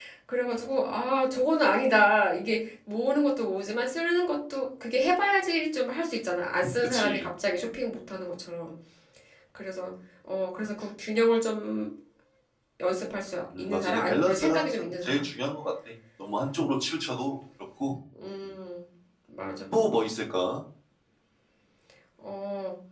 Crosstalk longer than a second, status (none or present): present